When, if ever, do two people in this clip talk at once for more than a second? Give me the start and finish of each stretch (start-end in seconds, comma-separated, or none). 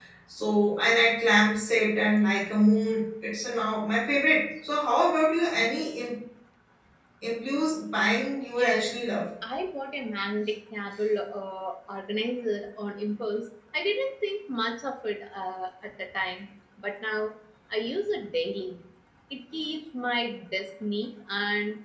none